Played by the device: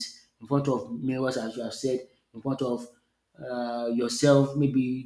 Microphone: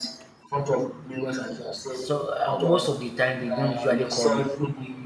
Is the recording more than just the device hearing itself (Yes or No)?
Yes